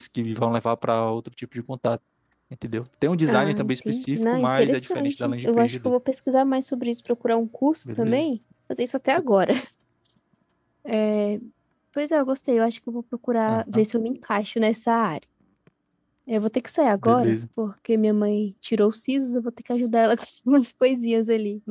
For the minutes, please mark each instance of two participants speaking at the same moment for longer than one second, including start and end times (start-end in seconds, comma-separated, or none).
3.3-5.9